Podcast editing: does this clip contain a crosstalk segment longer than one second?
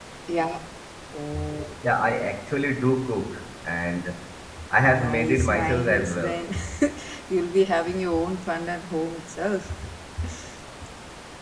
Yes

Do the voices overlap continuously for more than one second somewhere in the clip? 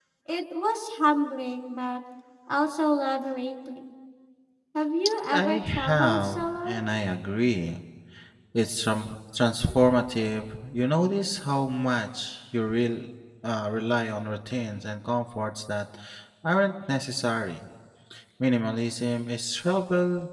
Yes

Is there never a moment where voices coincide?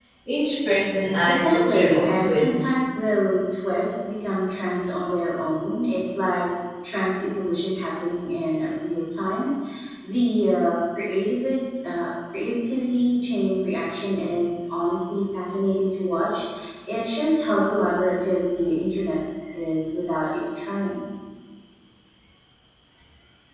No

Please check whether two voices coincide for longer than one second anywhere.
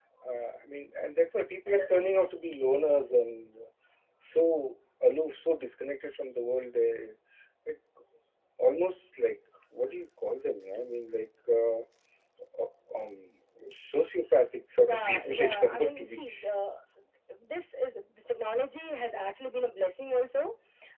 Yes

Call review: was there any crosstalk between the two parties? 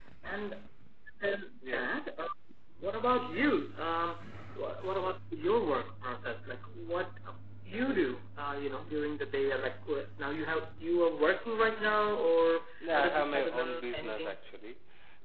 Yes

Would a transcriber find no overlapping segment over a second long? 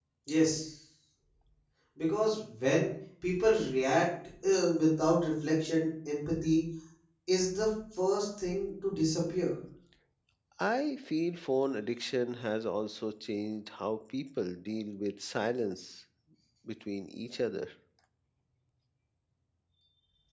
Yes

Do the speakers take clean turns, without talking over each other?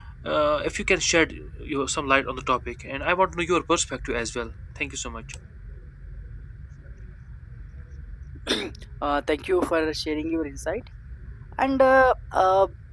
Yes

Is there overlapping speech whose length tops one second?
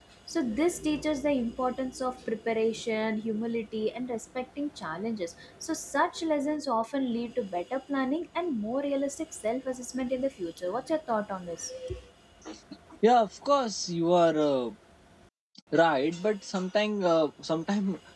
No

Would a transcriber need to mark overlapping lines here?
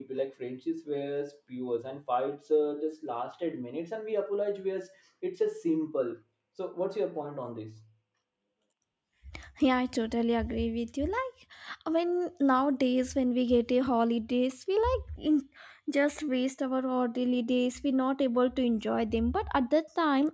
No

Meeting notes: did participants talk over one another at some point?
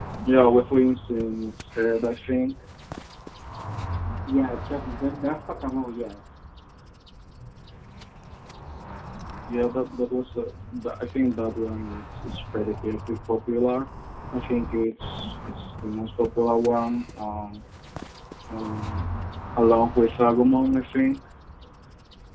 No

